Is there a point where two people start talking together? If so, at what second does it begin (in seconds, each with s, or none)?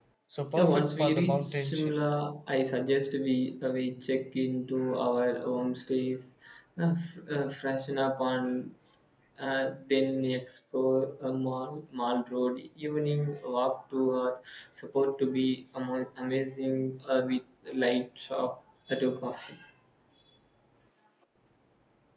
0.6 s